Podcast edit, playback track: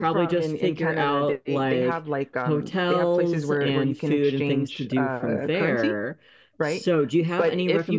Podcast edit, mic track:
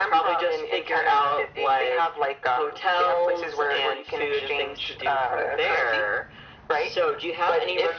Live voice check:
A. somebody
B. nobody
B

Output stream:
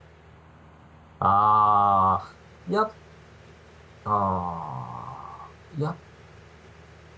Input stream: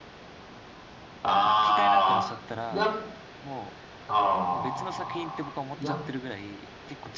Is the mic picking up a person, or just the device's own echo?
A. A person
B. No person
A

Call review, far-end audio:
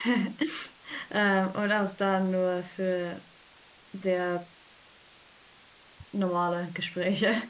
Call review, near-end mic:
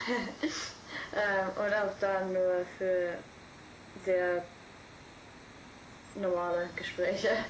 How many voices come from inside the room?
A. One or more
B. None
B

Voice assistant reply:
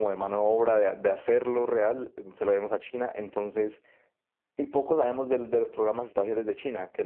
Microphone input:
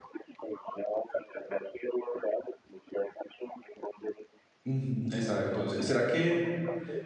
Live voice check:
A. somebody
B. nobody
A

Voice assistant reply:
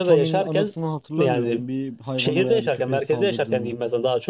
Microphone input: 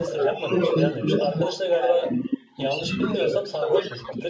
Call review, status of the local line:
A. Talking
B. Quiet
A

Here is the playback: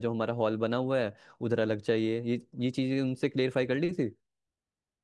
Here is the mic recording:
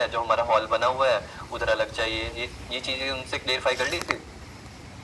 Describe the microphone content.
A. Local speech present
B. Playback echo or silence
B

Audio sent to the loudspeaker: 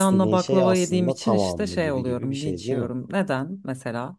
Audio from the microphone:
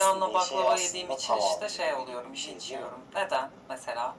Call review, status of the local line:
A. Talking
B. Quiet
B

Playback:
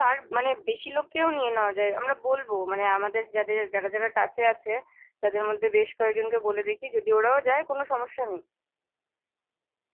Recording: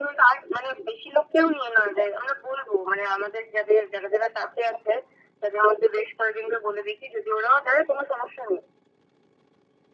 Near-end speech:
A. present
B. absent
B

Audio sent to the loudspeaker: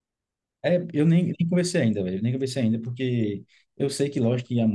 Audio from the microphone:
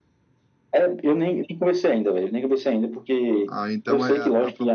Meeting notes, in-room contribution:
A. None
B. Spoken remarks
B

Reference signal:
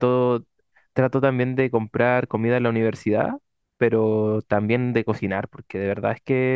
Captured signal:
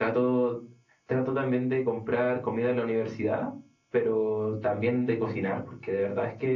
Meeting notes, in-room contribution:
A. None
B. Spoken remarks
A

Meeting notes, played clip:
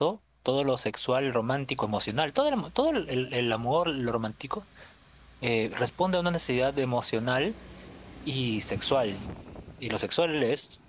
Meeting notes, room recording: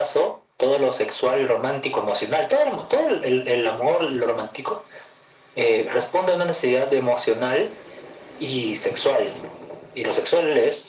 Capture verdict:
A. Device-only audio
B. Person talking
A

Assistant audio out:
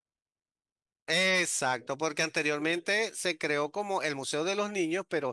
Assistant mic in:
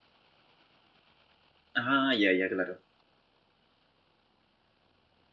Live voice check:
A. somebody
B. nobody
A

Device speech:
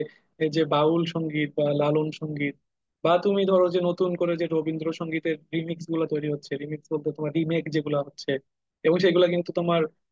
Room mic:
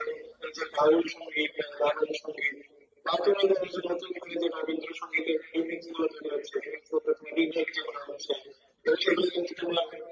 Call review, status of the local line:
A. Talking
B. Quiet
B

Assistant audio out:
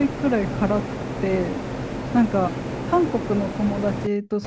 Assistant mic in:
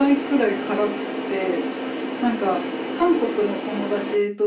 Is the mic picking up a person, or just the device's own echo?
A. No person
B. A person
A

